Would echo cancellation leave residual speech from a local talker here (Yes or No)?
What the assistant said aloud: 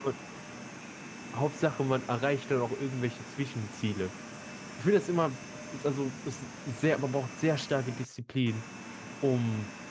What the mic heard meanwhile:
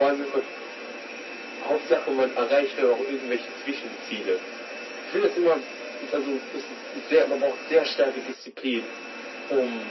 No